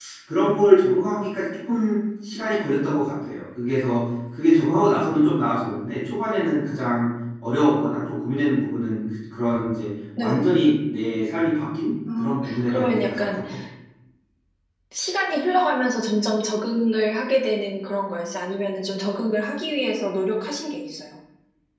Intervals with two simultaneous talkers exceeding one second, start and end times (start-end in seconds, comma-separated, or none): 12.2-13.4